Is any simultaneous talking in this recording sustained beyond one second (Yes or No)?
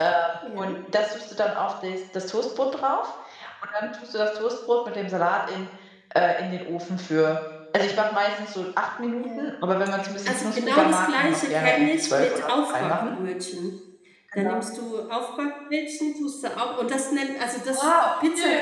Yes